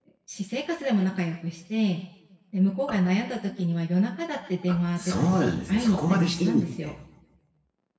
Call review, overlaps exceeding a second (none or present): present